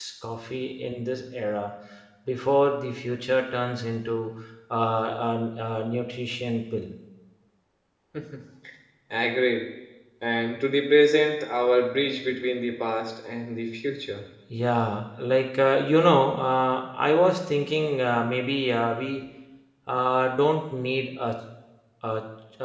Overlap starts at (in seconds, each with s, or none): none